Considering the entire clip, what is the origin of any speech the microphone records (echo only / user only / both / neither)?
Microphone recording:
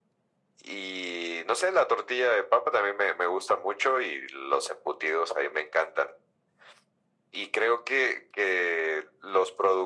echo only